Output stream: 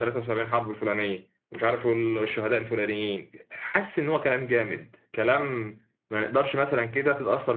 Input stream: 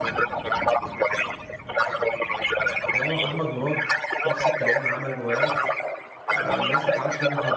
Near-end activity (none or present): present